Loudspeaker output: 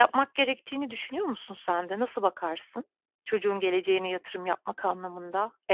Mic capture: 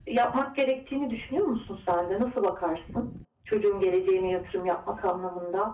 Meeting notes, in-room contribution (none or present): none